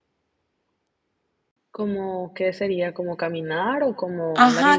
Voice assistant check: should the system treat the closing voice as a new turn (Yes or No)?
Yes